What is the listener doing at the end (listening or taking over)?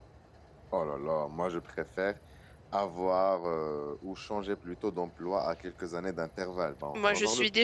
taking over